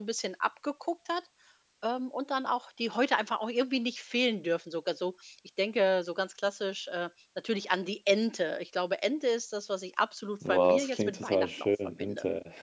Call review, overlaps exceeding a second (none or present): present